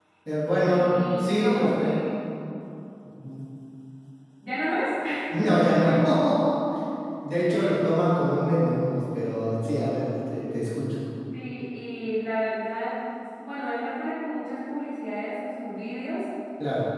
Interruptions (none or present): present